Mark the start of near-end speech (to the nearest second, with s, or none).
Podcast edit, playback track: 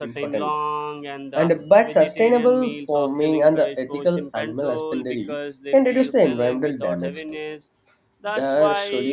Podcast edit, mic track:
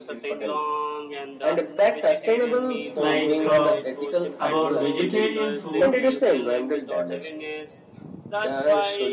3 s